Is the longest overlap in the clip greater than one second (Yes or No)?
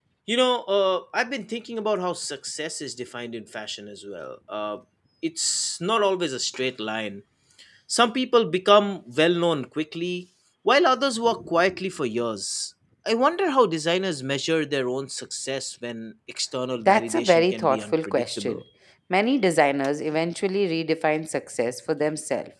Yes